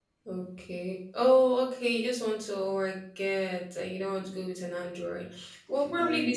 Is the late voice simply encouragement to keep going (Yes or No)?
Yes